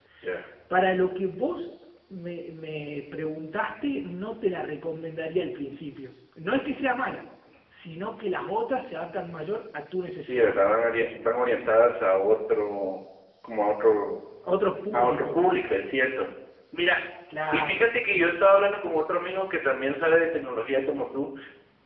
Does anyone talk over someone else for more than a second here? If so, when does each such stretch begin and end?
none

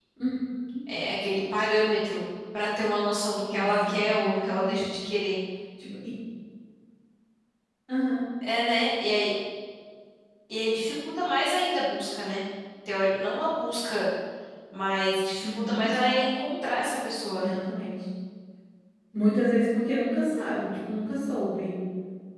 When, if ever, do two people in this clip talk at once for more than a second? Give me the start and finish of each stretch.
3.5-4.9

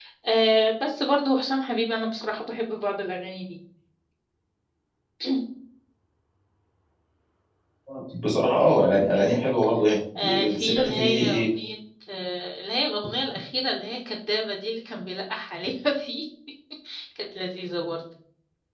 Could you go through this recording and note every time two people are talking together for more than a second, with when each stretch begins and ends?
10.2-11.4

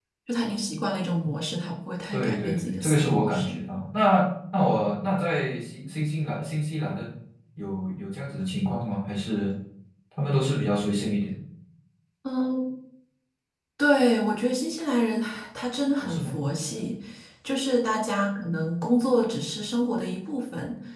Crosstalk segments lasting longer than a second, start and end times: 2.1-3.6

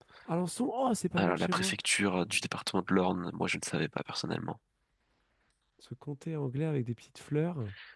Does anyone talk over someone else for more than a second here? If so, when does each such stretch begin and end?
none

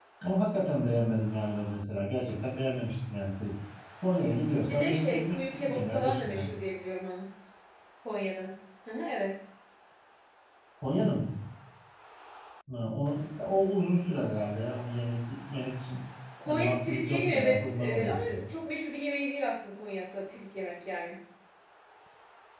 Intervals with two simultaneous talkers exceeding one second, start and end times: 4.7-6.5, 16.5-18.4

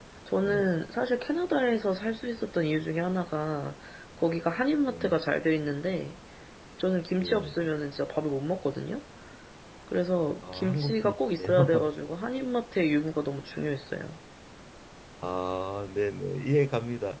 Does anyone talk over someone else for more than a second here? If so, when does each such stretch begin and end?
10.5-11.9

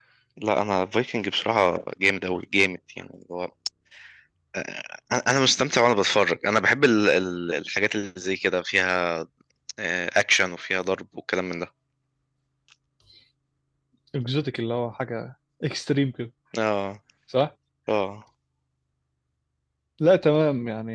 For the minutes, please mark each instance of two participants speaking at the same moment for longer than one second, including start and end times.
none

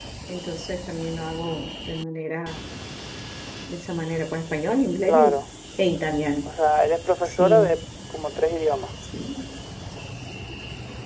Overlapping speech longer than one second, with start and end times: none

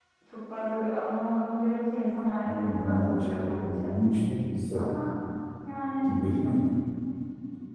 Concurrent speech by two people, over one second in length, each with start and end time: 2.5-3.9

